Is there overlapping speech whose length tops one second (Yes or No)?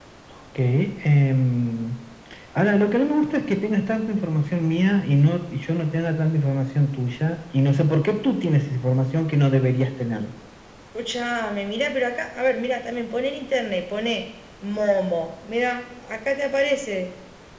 No